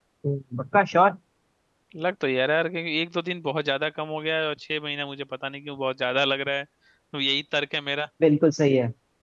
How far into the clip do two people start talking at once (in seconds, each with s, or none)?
none